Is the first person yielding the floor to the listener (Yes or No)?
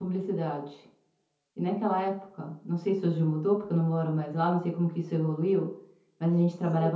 No